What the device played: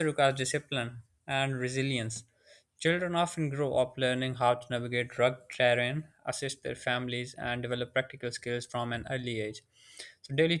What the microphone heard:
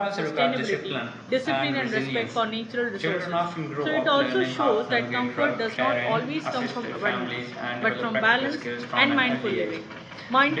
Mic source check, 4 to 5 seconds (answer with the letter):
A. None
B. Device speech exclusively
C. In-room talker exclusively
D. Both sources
D